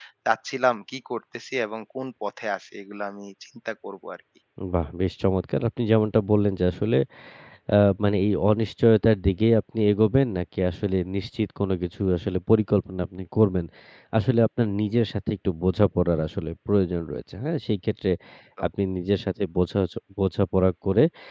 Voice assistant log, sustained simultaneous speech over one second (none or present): none